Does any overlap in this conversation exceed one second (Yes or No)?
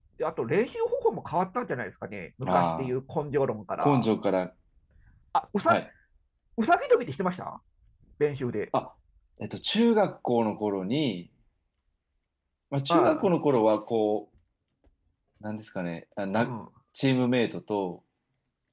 No